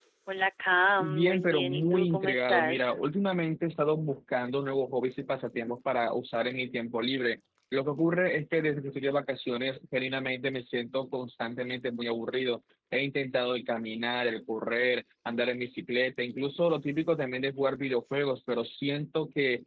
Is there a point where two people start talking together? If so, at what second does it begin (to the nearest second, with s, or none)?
1 s